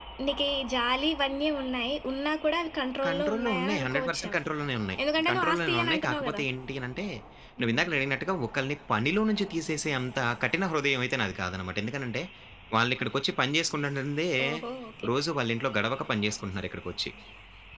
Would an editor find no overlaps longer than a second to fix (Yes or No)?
No